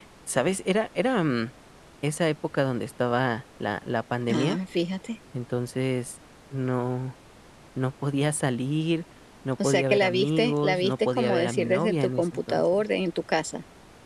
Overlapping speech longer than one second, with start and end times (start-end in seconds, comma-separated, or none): 9.6-12.8